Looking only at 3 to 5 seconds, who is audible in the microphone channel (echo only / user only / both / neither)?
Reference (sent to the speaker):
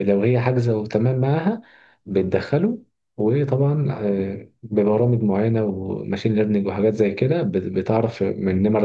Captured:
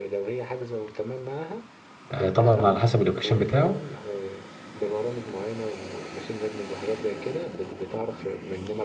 both